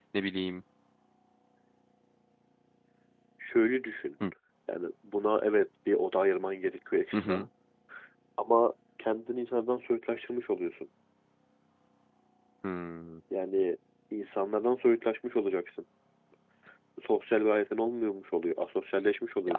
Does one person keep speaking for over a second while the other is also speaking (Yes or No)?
No